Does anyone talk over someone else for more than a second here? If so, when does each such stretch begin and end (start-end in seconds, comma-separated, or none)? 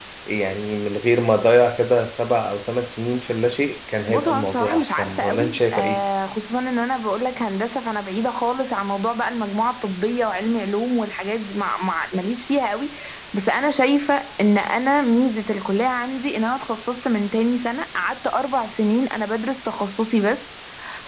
4.1-6.0